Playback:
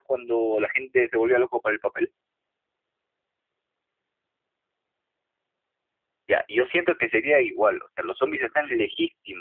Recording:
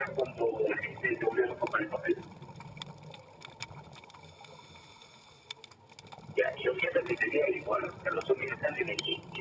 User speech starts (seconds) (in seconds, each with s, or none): none